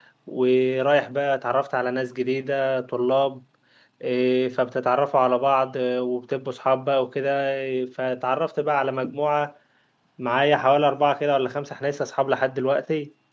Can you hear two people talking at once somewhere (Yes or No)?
No